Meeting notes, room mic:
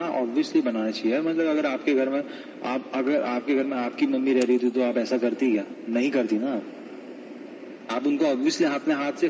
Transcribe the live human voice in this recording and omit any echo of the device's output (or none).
none